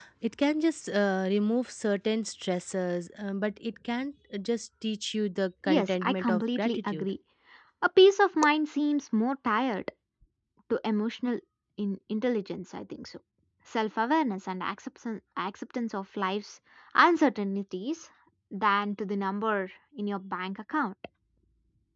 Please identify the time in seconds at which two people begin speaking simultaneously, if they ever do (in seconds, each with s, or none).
5.7 s